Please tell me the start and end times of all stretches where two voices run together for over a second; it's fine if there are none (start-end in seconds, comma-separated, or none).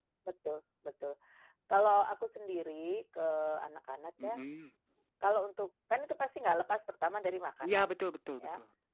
none